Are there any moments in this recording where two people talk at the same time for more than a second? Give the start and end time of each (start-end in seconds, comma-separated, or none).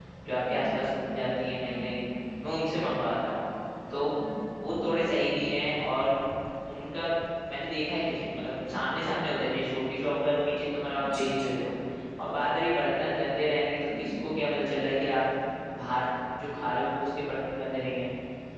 none